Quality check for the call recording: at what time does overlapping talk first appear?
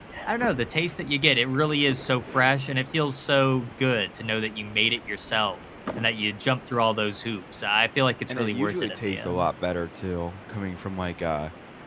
8.3 s

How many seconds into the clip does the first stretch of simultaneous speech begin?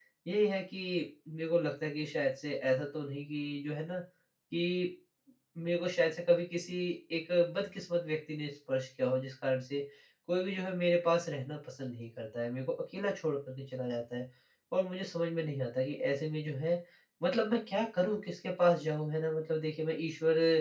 none

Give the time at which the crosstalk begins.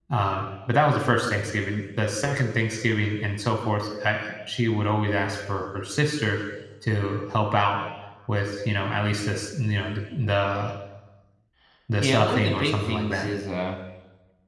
12.0 s

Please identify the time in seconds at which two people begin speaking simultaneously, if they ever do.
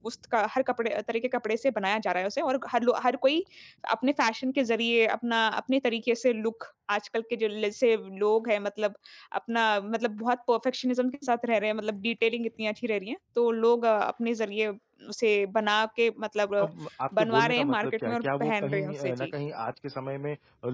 17.2 s

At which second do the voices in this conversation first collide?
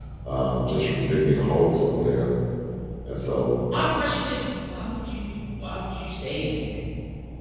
none

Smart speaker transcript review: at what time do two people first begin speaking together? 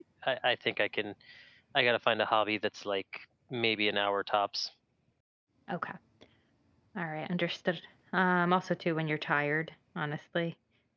none

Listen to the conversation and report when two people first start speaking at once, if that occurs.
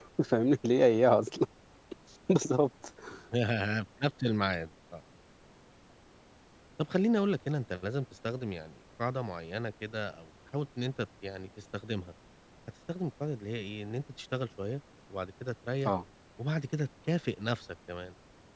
none

